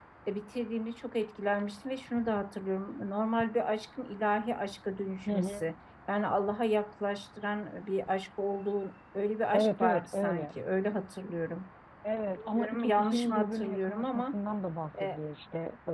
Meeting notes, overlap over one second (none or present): present